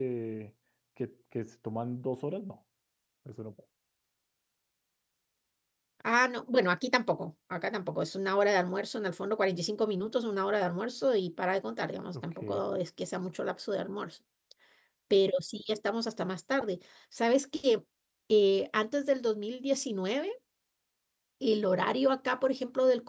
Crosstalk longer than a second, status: none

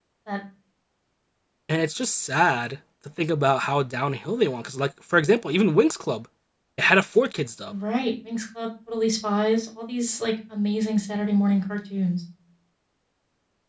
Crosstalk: none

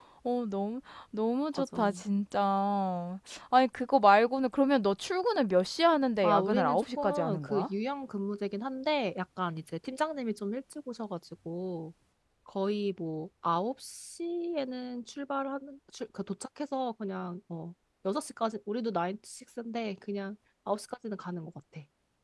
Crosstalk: present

